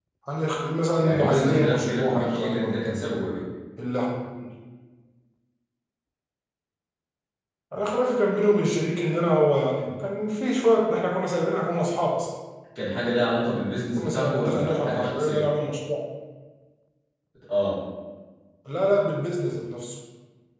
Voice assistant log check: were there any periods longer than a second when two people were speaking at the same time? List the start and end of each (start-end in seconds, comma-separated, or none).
1.0-3.0, 14.0-15.5